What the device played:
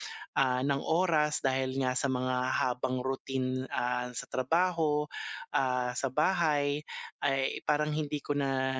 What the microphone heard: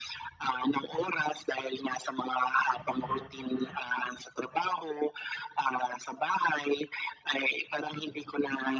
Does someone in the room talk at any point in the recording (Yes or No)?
No